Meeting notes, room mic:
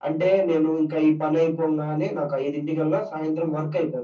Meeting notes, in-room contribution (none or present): none